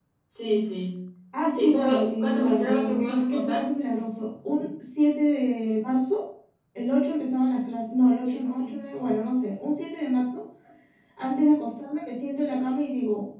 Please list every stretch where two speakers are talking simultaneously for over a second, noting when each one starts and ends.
1.6-3.6

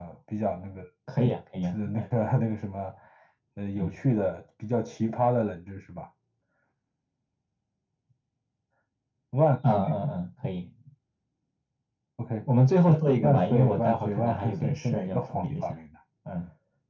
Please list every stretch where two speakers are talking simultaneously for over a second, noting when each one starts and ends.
13.2-15.6

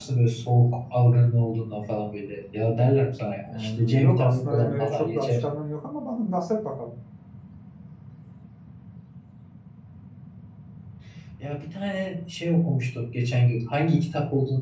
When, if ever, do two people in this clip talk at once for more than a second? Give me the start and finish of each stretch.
3.5-5.4

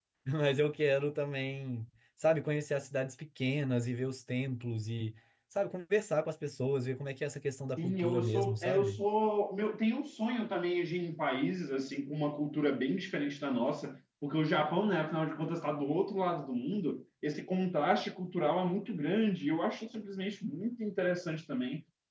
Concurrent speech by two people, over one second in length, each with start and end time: 7.8-9.0

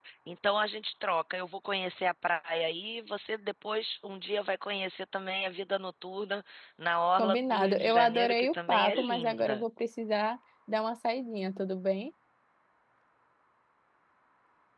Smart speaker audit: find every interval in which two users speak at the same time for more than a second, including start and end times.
7.2-9.6

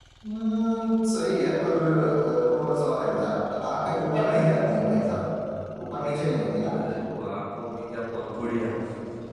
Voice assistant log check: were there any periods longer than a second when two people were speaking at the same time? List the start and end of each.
none

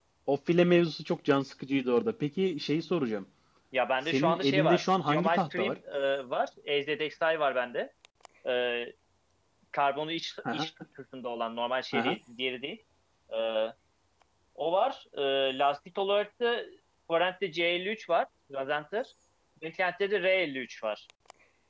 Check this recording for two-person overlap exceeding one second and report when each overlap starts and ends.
4.1-5.7

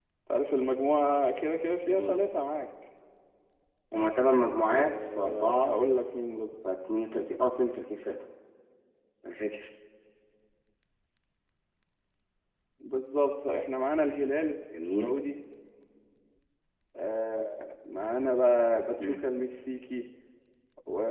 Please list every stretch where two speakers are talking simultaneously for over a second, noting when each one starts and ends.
4.4-5.8

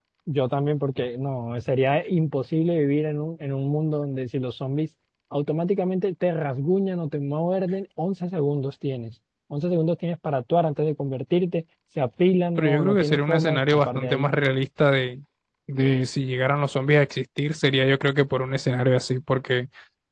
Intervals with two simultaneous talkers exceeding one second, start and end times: 12.6-14.3

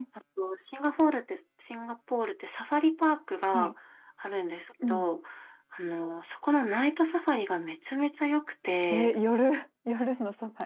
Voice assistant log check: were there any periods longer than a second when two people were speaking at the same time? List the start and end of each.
none

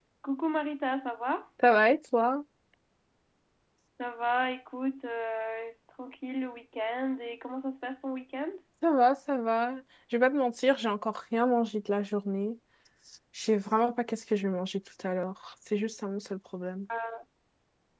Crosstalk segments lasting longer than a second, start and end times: none

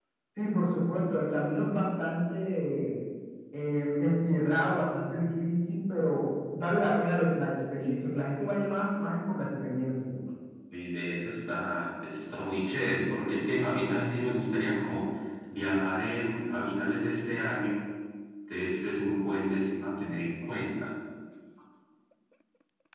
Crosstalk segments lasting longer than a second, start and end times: none

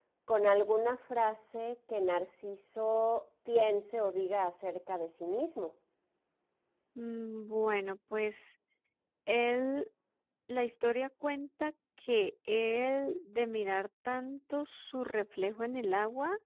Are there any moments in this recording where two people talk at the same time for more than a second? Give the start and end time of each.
none

